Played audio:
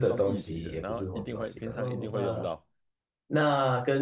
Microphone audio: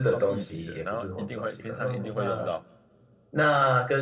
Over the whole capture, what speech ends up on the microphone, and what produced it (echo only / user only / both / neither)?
echo only